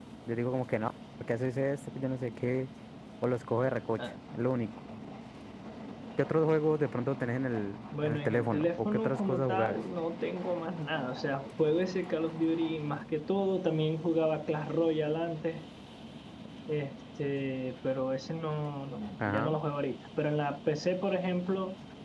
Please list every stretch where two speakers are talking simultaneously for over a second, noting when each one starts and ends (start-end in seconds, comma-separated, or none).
8.0-9.8